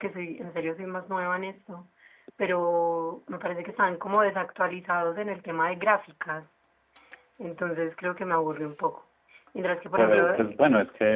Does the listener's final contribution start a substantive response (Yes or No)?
Yes